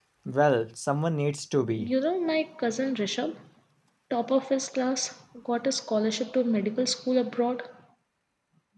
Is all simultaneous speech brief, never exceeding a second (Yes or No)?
Yes